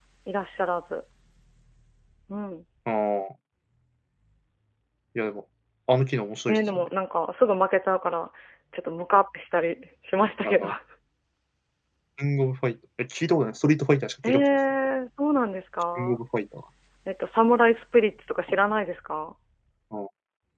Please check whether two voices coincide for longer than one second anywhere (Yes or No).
No